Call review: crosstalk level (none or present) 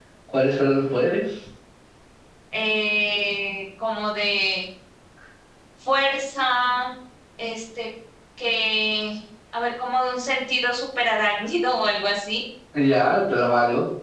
none